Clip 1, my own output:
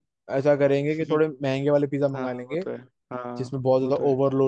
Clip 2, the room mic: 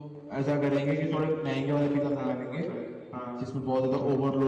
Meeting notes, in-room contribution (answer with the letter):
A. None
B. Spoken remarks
A